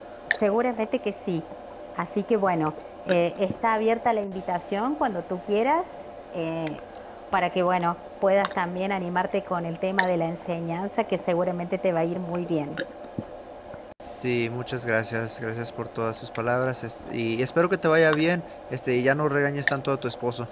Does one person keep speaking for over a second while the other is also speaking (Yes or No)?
No